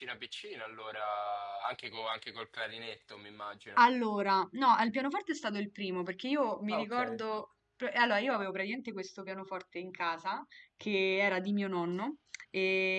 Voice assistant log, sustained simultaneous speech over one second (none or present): none